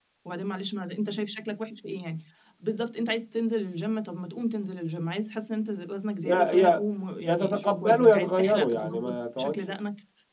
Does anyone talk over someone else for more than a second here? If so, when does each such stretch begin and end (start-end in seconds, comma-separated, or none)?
7.3-9.7